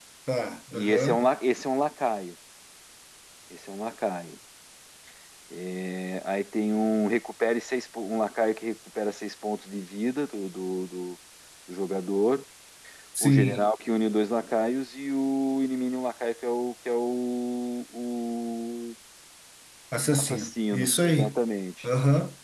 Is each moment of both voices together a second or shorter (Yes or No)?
No